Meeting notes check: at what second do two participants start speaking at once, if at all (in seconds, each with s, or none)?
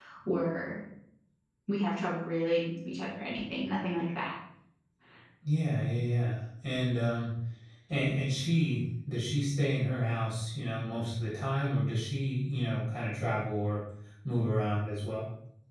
none